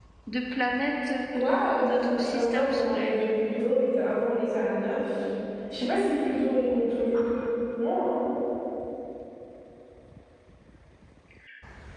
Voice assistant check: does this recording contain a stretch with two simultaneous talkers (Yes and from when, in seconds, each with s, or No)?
Yes, from 1.3 s